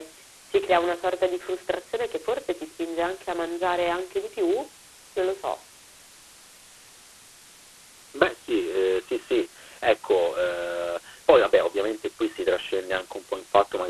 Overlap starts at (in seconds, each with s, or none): none